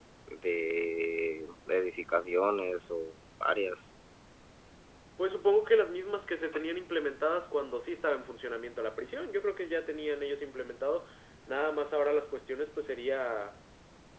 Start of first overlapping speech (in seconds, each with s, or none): none